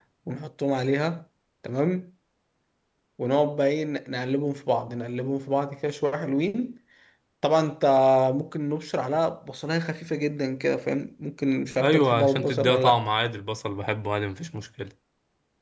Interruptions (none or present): present